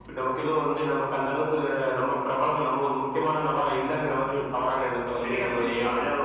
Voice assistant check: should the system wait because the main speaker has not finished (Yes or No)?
No